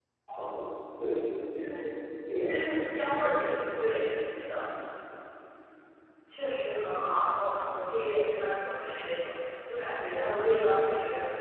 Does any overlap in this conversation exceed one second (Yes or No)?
No